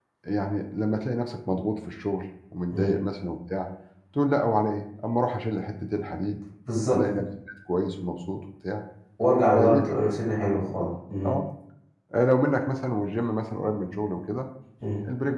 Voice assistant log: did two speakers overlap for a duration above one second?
No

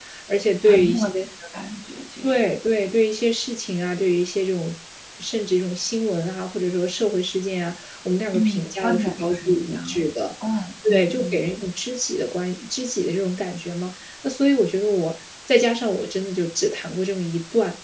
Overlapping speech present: Yes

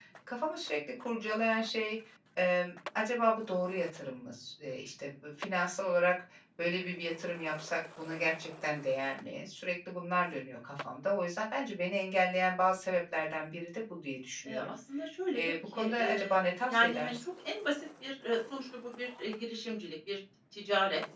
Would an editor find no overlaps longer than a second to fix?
No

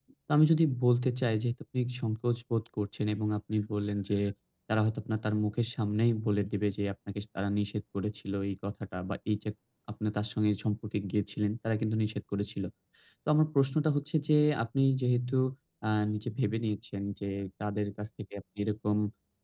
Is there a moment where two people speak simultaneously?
No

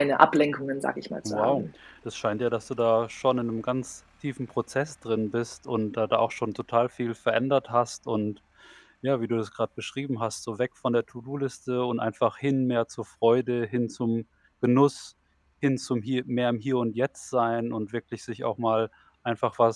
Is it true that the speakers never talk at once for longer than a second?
Yes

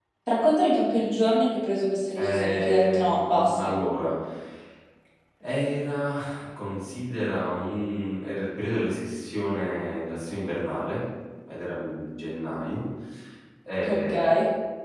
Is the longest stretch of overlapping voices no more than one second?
No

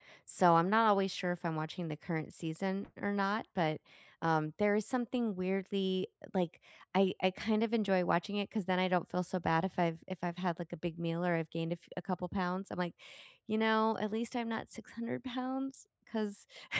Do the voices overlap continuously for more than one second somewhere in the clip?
No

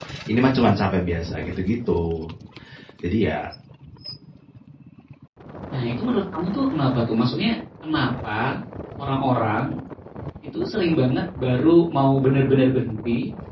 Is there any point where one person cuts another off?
No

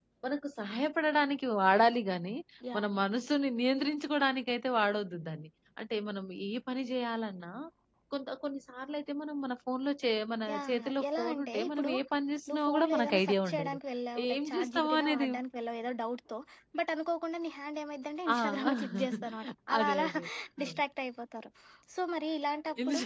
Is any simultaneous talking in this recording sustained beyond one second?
Yes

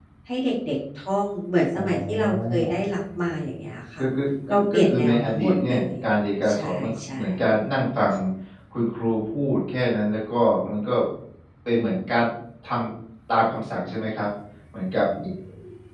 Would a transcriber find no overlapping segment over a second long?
No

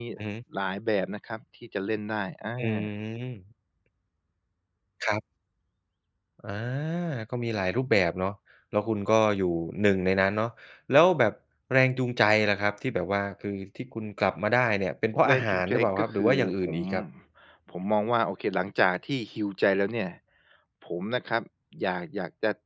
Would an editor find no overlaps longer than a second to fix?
No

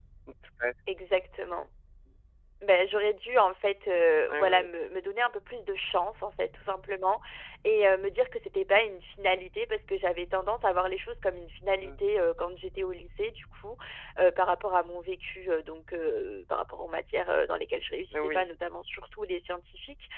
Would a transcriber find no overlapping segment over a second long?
Yes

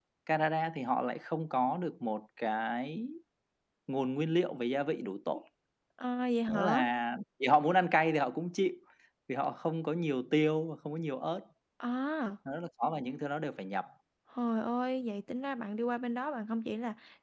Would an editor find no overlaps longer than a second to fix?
Yes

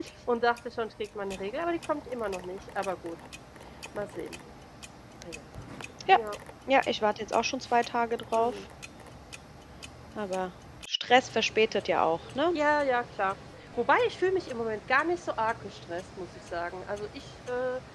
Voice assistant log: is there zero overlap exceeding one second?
Yes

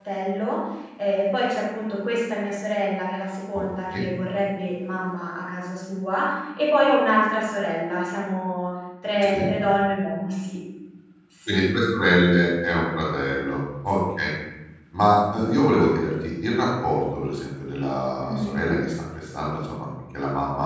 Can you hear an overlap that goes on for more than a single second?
No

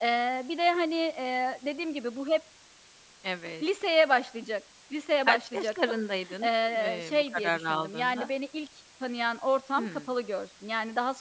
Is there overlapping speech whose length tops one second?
Yes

